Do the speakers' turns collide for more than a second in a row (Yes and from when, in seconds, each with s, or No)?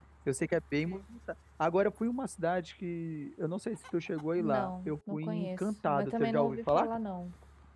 Yes, from 4.4 s